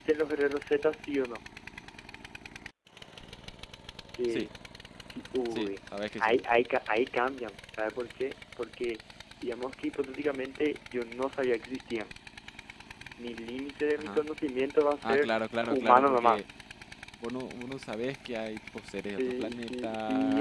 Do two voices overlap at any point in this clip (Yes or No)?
Yes